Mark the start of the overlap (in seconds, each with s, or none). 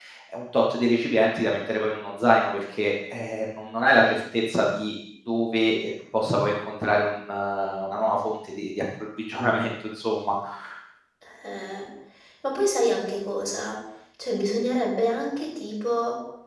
none